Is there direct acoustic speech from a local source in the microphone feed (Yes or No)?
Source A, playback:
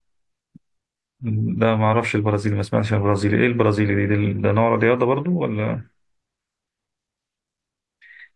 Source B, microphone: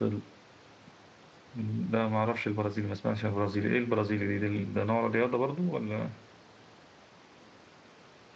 No